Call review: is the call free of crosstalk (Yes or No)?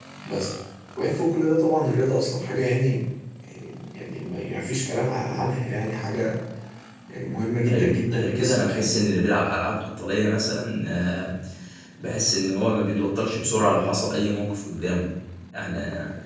No